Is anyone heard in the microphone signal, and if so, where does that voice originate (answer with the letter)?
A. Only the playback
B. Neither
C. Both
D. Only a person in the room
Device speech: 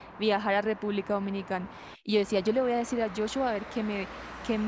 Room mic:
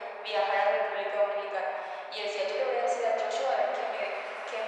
A